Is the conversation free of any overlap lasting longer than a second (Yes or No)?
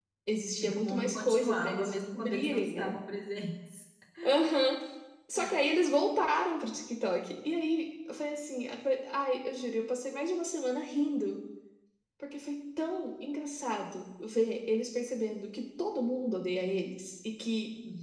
No